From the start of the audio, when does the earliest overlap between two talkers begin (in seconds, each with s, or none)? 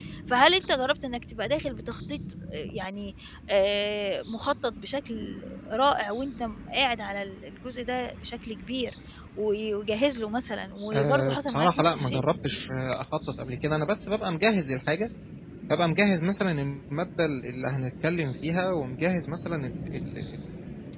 10.9 s